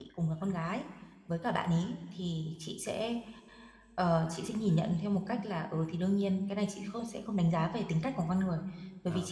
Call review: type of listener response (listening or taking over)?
listening